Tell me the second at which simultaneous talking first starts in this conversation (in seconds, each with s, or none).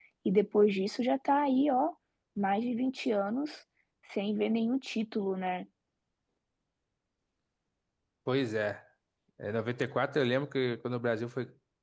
none